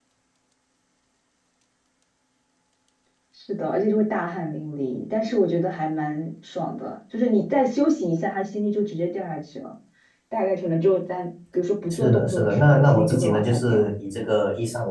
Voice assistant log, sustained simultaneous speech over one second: present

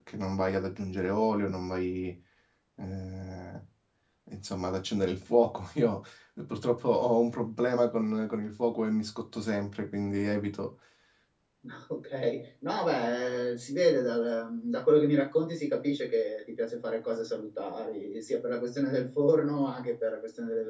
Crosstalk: none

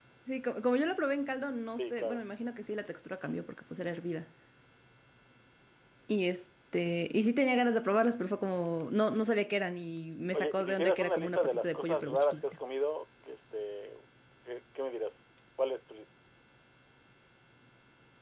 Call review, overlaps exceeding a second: present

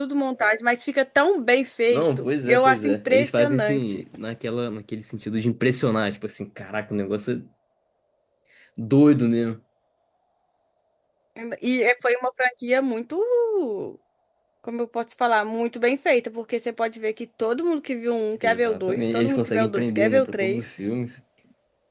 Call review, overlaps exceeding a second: present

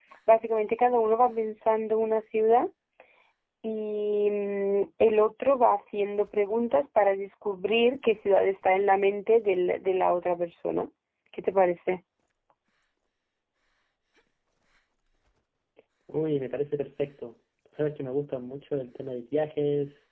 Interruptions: none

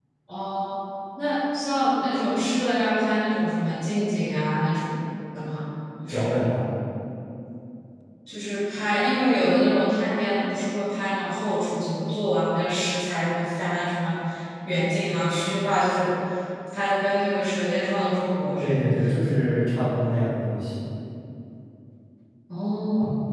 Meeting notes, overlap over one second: none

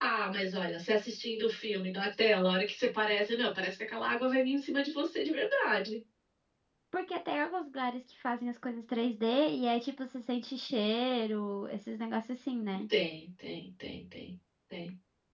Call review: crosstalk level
none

